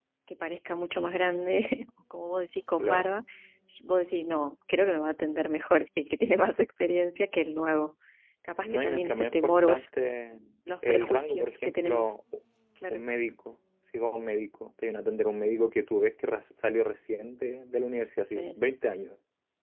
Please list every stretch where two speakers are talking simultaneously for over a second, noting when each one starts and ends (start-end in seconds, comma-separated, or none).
8.6-9.9, 10.9-12.1